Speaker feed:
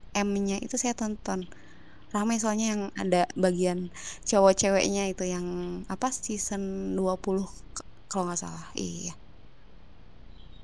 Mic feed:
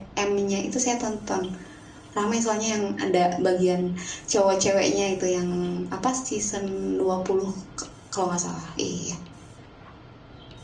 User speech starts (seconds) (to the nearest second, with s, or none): none